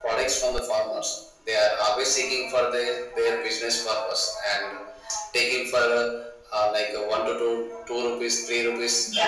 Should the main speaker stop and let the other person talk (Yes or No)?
Yes